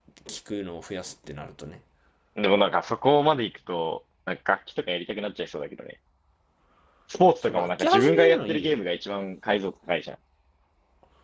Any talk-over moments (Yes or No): Yes